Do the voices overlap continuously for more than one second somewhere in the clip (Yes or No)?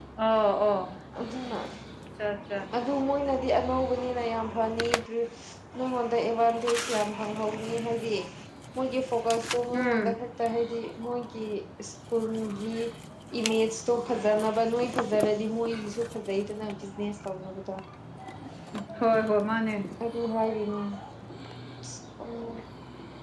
No